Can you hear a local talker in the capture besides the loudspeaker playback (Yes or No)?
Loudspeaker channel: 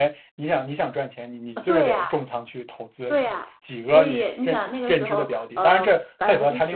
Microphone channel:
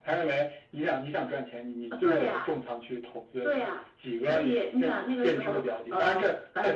No